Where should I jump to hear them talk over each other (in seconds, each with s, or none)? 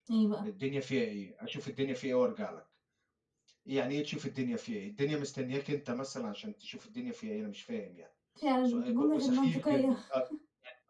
8.6 s